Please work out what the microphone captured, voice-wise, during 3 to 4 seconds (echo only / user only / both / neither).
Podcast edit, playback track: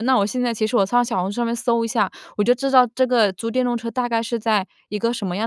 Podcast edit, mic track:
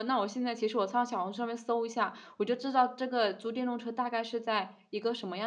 echo only